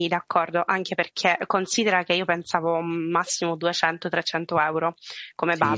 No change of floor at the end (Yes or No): No